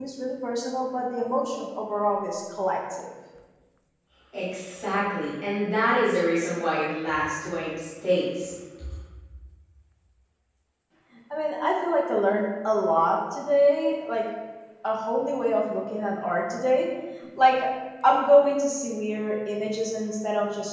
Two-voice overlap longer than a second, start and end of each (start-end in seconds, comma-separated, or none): none